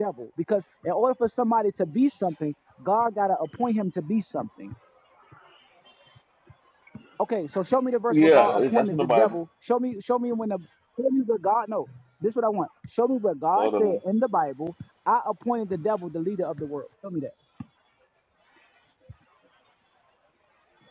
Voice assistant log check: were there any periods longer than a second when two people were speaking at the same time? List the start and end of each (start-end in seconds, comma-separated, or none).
8.1-9.3